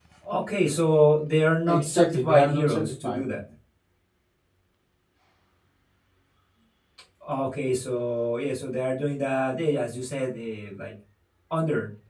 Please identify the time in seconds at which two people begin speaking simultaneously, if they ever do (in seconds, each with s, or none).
1.7 s